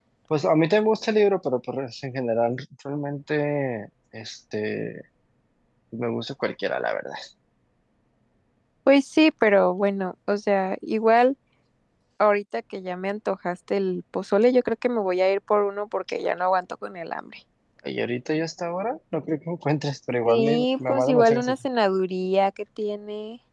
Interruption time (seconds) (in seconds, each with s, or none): 20.2 s